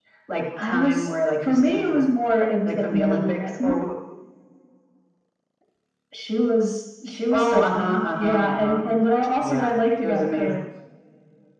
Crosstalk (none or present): present